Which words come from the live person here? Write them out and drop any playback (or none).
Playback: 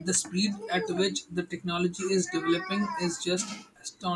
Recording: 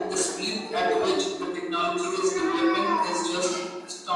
none